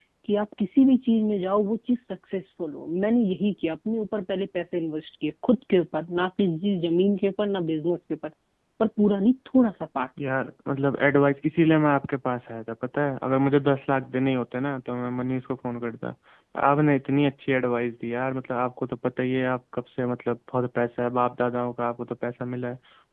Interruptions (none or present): none